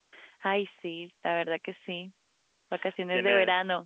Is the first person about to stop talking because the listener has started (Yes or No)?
Yes